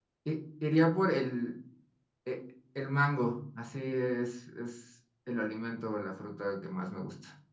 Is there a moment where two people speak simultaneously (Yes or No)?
No